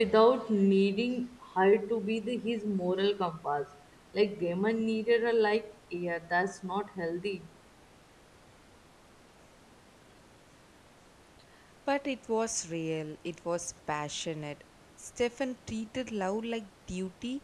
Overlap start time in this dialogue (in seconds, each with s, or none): none